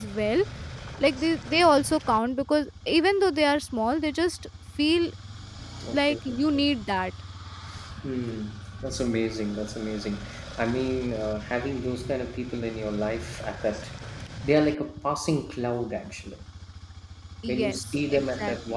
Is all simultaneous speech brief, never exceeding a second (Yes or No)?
No